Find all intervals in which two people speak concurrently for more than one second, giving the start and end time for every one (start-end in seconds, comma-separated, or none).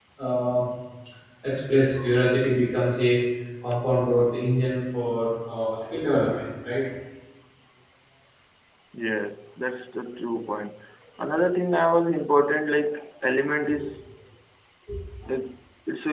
none